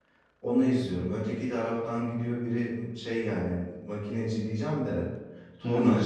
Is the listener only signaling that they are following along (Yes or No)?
Yes